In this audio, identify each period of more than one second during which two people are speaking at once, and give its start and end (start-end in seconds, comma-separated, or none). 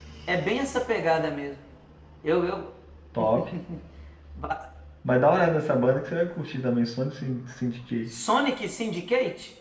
none